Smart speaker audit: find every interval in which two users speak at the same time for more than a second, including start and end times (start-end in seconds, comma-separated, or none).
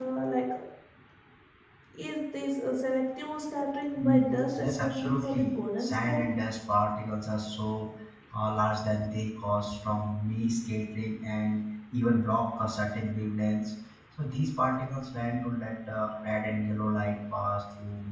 4.0-6.2